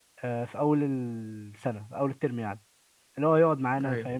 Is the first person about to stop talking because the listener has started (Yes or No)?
No